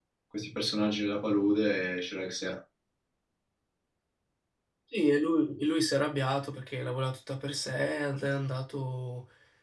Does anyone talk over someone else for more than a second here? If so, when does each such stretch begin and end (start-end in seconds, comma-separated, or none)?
none